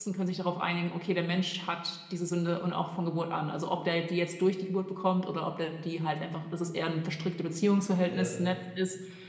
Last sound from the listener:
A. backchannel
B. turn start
A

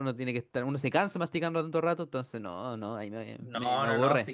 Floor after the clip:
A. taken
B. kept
A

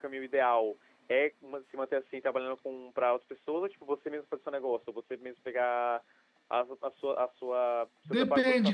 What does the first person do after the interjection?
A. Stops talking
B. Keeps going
A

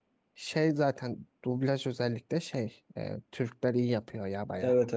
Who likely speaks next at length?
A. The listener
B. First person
A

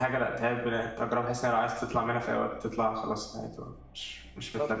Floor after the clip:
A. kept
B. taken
B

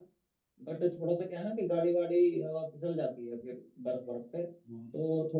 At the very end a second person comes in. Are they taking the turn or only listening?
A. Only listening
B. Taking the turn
A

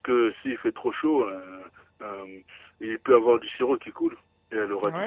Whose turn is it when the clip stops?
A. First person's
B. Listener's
B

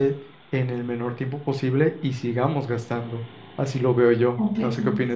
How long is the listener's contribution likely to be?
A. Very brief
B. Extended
B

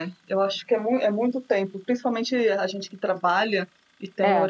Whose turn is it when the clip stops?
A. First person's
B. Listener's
A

